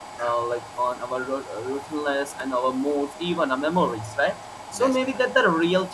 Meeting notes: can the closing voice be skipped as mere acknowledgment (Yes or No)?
Yes